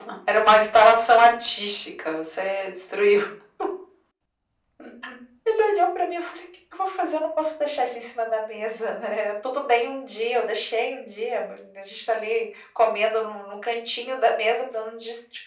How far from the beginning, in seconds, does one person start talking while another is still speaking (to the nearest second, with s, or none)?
none